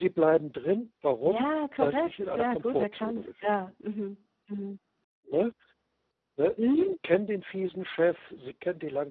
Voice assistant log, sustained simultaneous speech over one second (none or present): present